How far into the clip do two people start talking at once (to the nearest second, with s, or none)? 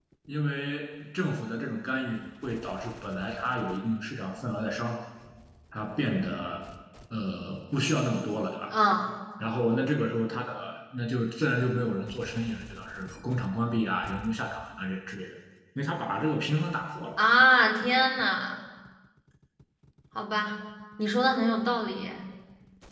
none